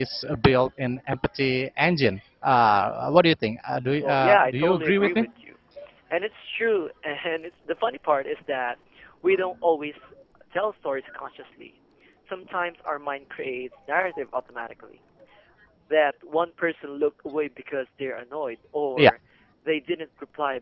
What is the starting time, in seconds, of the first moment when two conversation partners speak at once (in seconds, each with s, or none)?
4.0 s